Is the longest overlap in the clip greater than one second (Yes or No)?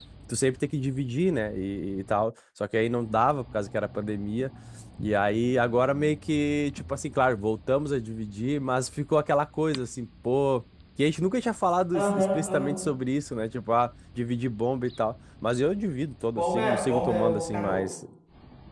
Yes